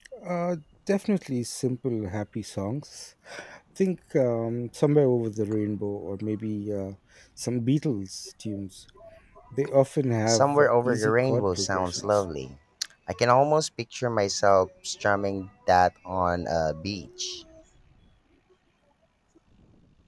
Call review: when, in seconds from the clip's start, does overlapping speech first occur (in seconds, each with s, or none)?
10.3 s